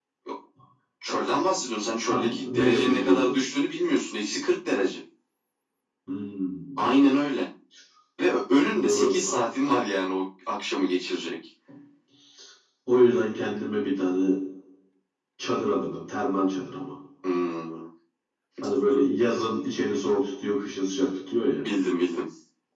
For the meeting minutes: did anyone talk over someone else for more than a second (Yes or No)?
Yes